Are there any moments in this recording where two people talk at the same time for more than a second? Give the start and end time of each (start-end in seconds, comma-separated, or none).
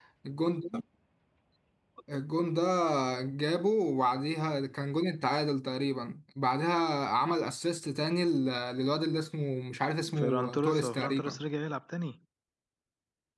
10.2-11.4